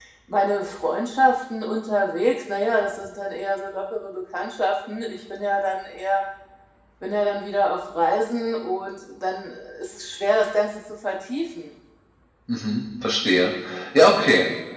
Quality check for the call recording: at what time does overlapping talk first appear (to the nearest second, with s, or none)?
none